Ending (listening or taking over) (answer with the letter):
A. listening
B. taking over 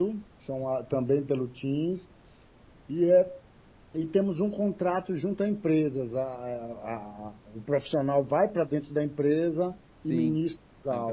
B